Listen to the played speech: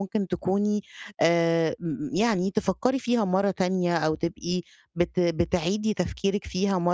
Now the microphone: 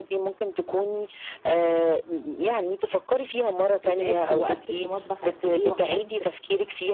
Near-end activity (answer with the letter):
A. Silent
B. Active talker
B